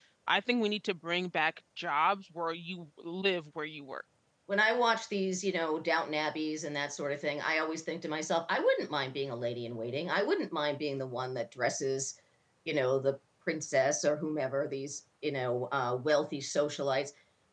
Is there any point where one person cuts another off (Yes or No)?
No